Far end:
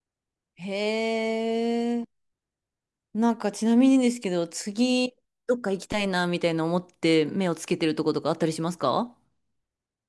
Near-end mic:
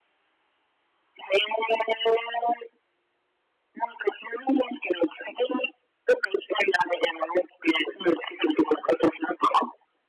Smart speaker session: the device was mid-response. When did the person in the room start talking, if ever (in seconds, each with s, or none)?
none